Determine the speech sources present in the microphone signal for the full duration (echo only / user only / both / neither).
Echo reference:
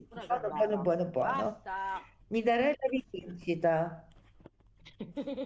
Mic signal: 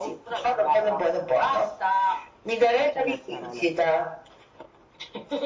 both